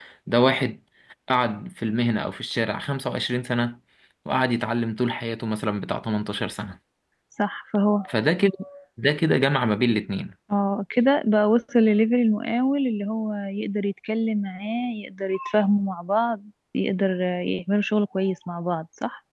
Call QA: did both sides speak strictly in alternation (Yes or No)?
Yes